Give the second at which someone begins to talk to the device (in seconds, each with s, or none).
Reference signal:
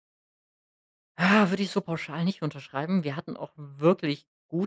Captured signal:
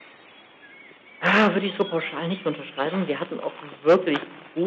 none